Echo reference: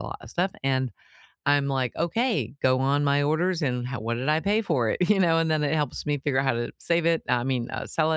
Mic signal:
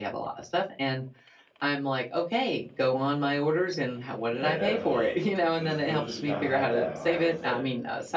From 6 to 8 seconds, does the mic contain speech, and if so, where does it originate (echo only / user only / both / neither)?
both